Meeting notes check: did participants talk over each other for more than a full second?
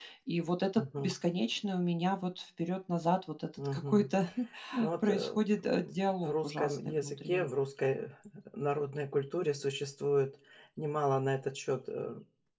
Yes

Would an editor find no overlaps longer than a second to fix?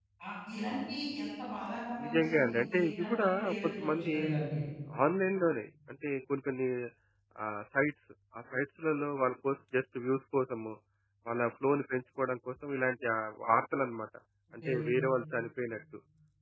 No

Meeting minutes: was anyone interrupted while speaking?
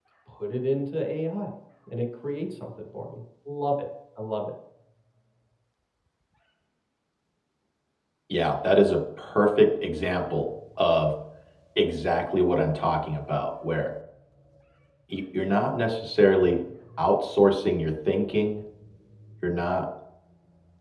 No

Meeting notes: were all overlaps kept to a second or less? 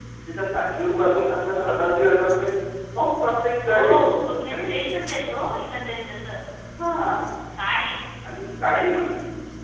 Yes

